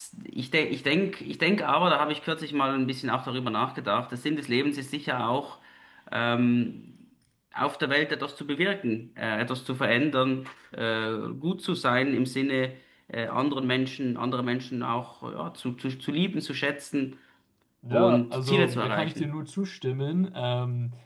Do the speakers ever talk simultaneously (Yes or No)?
Yes